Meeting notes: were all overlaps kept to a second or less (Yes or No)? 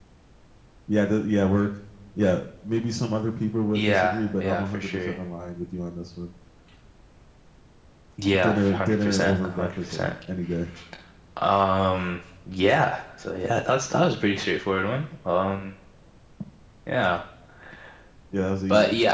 No